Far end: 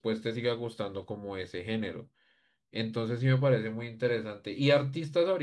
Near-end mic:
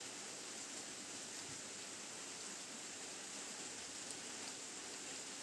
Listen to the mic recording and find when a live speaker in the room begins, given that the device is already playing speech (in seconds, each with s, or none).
none